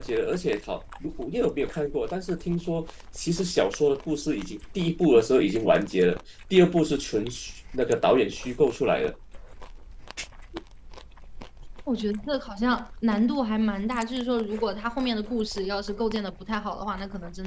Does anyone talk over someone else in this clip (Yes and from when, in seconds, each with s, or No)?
No